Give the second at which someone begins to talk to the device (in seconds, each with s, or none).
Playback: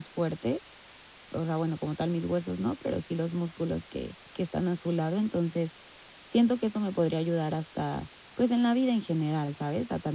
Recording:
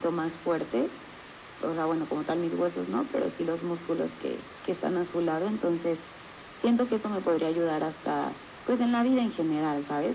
none